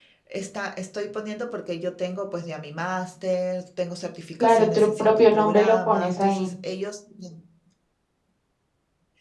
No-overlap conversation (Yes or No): No